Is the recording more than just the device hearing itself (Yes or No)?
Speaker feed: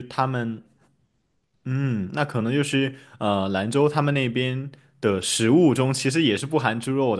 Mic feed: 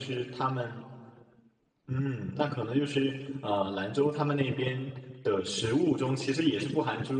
No